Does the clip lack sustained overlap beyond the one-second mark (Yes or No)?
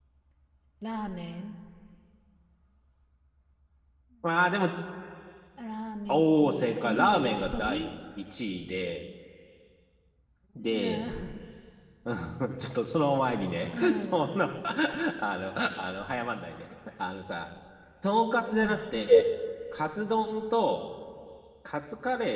No